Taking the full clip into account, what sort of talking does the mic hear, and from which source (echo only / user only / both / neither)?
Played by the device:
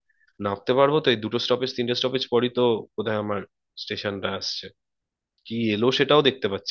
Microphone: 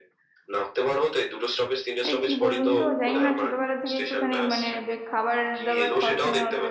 both